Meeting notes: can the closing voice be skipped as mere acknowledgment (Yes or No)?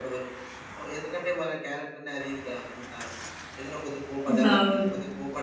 Yes